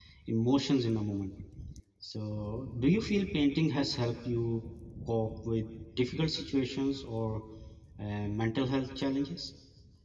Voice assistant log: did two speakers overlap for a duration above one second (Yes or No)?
No